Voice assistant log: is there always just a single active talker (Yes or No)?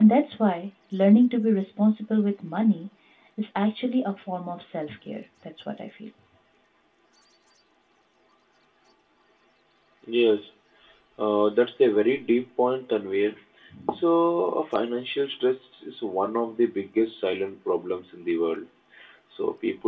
Yes